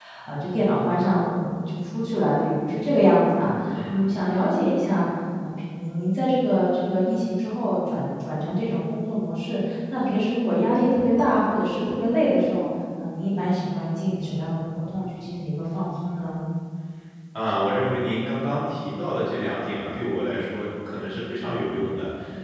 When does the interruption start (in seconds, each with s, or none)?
none